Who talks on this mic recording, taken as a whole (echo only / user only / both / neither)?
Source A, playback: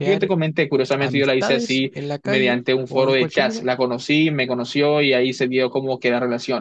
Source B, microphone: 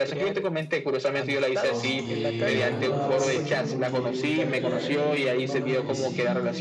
both